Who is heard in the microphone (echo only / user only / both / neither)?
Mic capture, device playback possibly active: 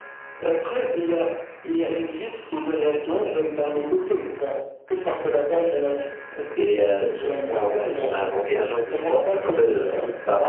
both